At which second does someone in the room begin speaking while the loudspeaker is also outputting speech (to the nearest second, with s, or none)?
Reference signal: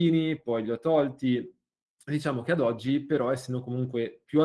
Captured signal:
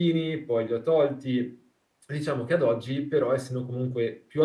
none